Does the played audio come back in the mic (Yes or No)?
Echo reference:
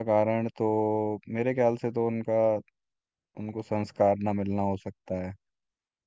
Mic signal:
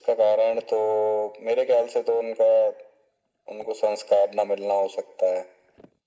Yes